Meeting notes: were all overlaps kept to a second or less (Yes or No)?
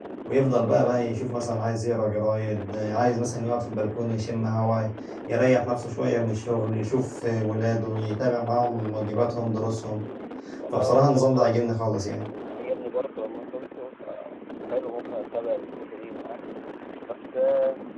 No